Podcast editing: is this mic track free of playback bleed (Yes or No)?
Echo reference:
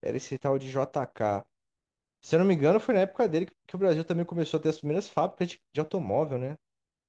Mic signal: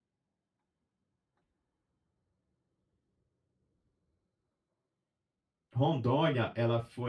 Yes